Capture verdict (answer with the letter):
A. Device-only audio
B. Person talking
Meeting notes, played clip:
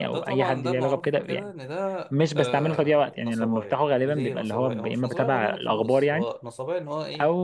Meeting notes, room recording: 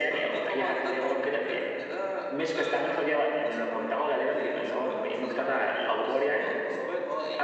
A